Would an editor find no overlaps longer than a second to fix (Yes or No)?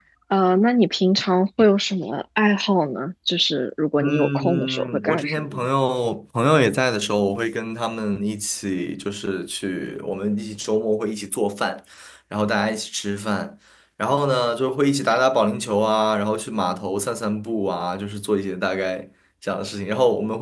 No